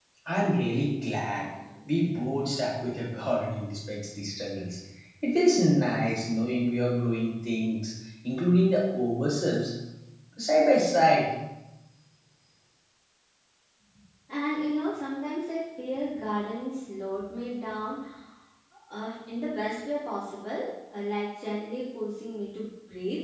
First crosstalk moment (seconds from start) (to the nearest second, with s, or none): none